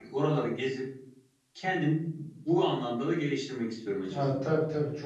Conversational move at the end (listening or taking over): taking over